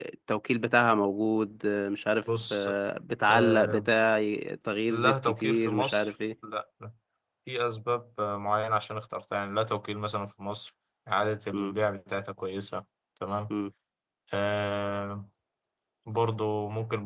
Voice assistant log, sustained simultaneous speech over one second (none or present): present